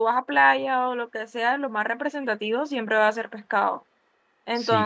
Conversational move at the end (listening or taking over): listening